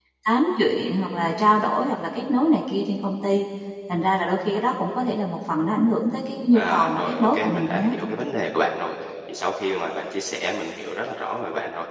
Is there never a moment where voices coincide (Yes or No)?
No